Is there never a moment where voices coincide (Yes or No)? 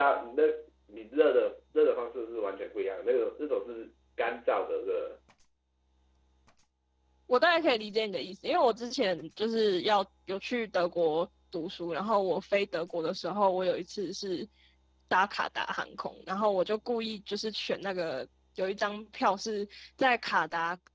Yes